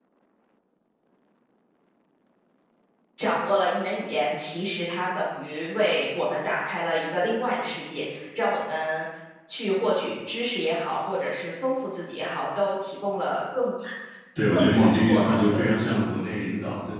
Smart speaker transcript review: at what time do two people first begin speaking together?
14.5 s

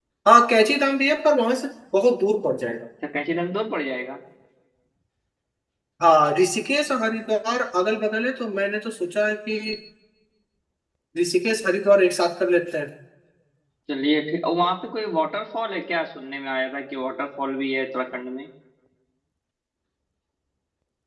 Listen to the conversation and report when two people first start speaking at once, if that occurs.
none

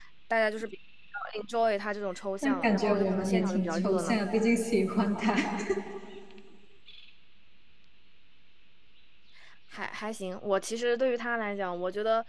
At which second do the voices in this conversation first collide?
2.4 s

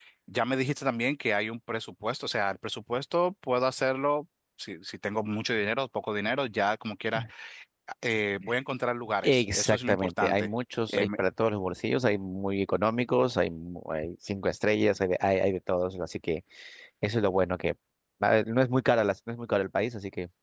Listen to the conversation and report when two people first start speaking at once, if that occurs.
9.2 s

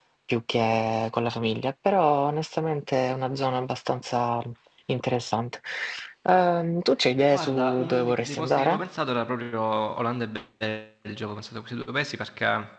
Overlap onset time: 7.3 s

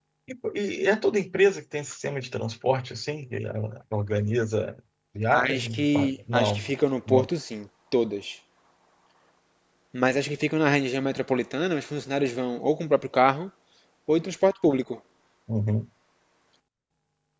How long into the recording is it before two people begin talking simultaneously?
5.3 s

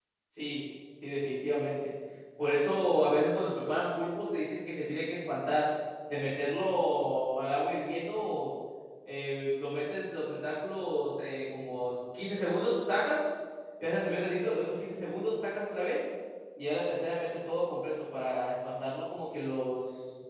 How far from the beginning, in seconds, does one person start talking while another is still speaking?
none

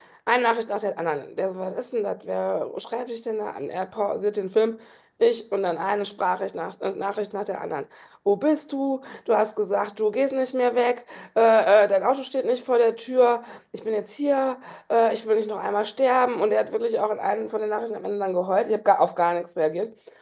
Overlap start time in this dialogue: none

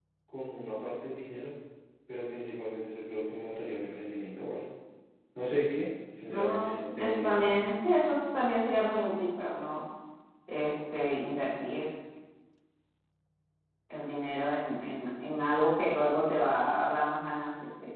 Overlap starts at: 6.2 s

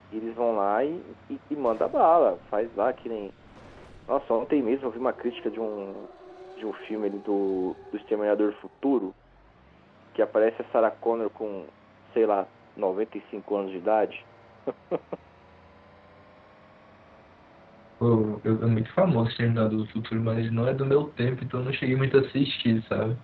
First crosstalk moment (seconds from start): none

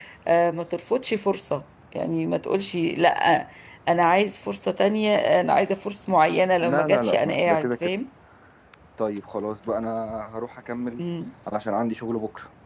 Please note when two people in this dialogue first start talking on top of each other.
6.6 s

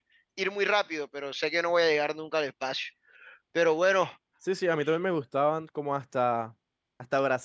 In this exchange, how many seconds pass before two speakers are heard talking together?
none

